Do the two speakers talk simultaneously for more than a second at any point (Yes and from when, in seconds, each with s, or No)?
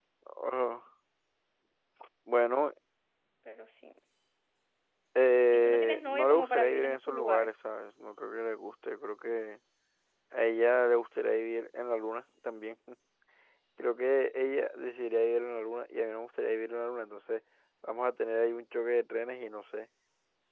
Yes, from 5.5 s